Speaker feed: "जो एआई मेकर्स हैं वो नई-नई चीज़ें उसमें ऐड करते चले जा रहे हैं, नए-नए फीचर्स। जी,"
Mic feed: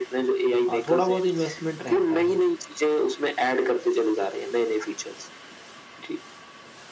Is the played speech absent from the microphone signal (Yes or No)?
No